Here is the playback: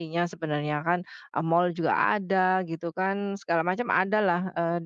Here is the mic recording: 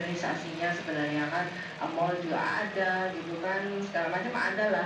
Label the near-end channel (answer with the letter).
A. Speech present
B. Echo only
B